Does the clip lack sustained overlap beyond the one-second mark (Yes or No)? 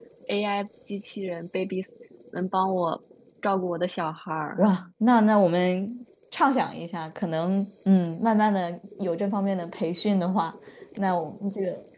Yes